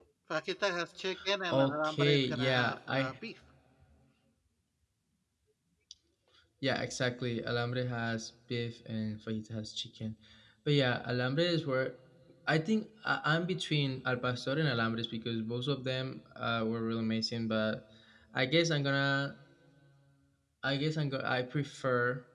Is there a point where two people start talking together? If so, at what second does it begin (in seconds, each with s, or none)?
1.5 s